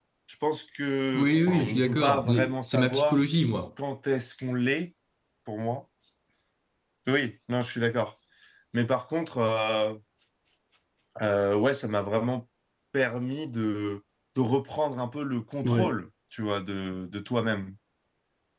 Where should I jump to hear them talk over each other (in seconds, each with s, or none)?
1.1 s